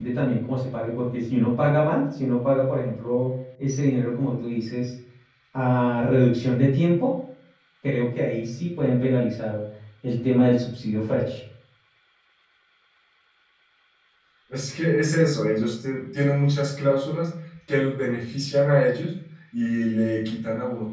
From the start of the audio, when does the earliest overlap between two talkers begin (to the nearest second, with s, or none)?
none